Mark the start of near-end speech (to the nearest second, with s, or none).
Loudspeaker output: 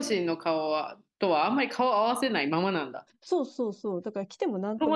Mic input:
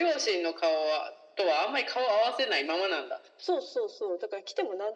none